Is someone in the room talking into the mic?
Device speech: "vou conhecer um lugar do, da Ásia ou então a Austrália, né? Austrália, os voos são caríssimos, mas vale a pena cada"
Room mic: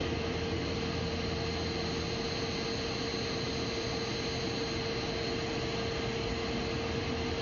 No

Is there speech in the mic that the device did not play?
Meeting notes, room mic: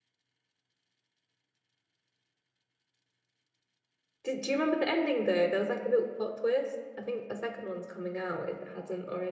Yes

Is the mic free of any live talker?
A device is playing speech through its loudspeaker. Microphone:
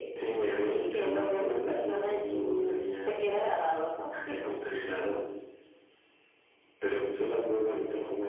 Yes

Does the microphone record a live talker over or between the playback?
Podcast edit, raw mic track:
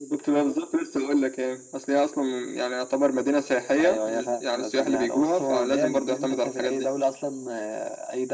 No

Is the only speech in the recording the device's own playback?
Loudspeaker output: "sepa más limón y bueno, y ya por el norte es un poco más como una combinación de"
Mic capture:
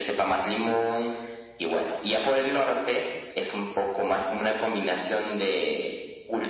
Yes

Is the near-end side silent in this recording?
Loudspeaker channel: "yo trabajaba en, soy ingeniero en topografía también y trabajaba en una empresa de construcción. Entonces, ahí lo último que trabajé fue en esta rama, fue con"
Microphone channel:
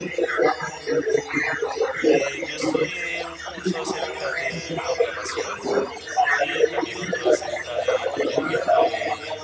No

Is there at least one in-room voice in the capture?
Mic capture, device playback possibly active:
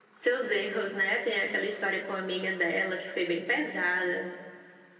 No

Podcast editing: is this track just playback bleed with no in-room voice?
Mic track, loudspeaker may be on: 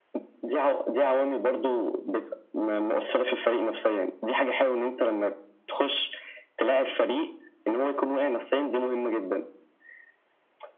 Yes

